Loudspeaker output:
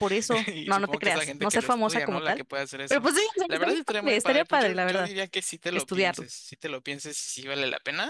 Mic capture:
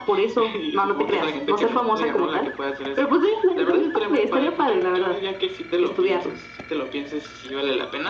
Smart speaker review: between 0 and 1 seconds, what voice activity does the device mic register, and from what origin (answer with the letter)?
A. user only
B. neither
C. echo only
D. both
C